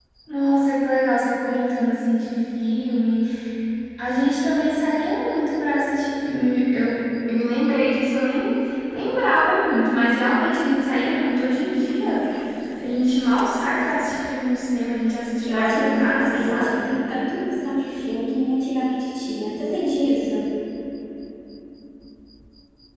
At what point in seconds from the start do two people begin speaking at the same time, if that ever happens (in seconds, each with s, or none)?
15.5 s